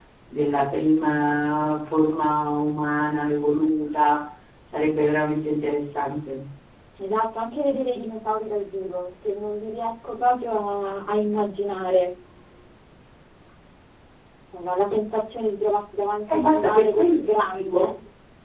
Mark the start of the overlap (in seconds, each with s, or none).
16.3 s